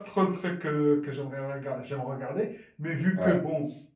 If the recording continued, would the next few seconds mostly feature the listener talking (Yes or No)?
No